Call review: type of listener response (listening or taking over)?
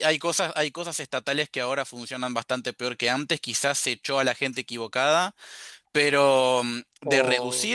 listening